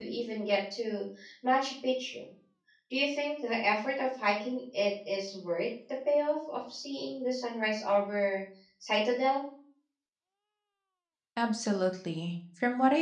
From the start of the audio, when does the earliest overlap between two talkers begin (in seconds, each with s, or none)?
none